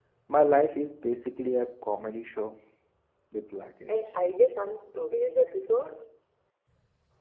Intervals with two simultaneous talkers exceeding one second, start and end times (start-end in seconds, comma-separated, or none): none